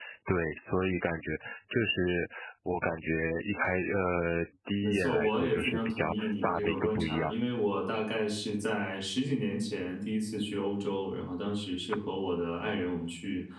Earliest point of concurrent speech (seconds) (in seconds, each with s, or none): 4.8 s